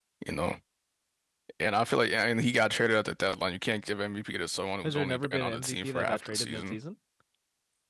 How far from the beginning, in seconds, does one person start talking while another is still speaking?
4.8 s

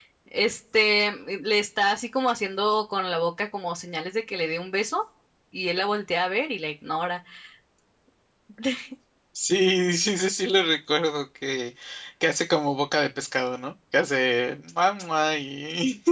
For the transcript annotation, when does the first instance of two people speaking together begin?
none

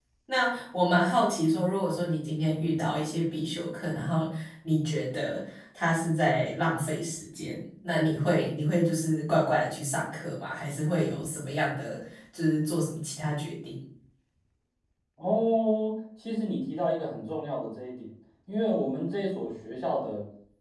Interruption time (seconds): none

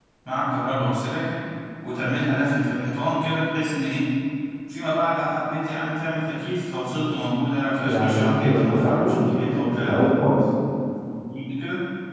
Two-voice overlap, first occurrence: 7.8 s

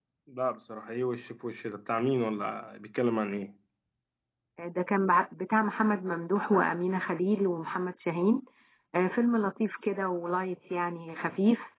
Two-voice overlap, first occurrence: none

